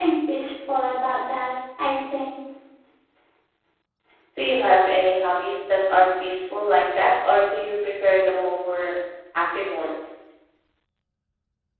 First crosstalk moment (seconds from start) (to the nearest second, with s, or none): none